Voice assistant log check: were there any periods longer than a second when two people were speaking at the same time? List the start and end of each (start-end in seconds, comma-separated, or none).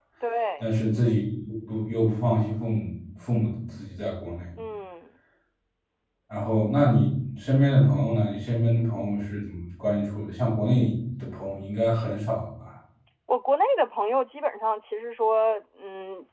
none